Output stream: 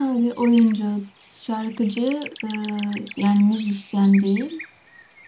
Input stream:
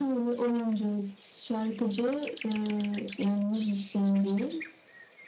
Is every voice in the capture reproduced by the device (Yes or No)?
Yes